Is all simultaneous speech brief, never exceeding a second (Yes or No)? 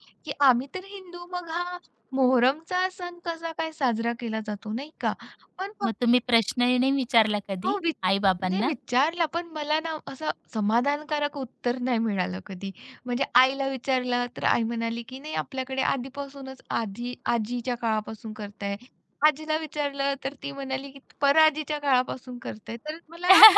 Yes